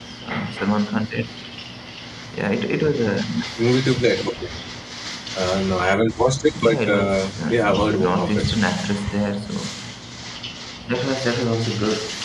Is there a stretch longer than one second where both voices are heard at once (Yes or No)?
Yes